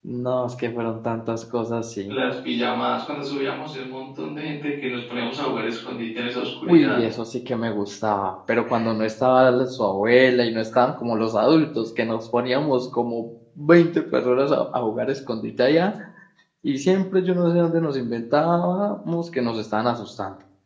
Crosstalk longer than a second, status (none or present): none